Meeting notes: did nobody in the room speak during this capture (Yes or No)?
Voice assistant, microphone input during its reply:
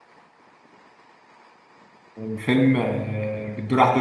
No